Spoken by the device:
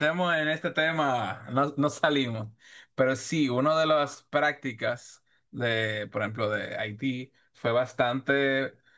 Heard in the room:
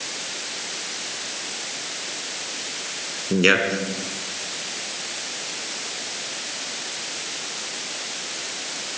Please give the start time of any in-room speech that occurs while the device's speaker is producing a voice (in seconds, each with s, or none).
3.3 s